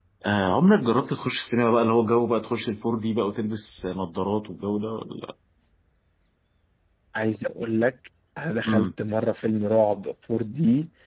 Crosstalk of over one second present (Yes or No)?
No